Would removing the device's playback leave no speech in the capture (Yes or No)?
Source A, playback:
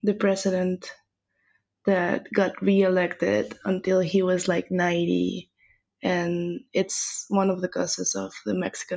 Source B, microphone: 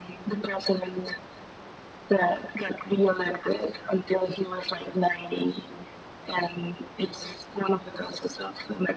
Yes